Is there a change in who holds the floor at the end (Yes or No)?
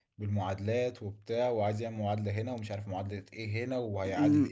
Yes